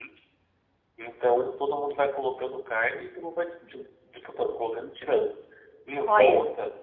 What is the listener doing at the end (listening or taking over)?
listening